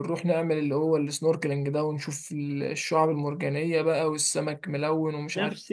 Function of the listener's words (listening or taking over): taking over